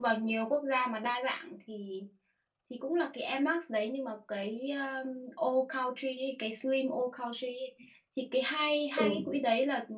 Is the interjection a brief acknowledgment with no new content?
Yes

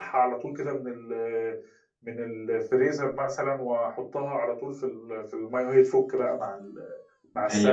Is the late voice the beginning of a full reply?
Yes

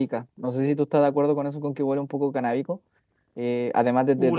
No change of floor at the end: No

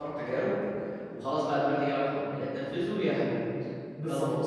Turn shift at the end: Yes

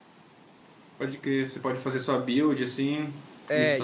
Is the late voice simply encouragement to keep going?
No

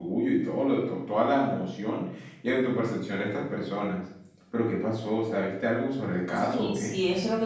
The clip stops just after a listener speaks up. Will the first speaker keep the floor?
No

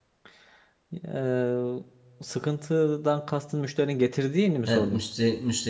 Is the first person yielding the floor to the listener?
Yes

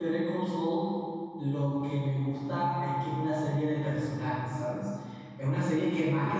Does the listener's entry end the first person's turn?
No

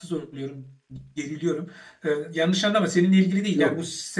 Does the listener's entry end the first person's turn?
No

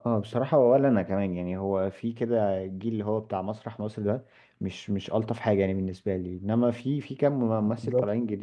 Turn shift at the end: No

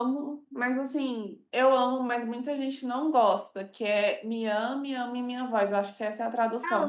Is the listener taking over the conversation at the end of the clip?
Yes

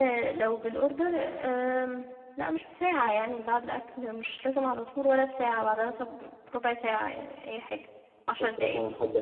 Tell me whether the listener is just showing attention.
No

